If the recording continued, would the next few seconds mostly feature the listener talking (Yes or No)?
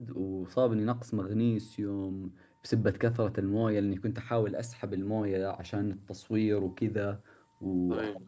No